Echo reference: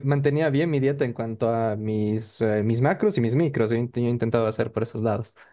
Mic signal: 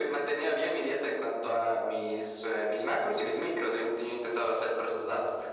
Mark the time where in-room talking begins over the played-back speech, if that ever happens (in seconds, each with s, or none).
none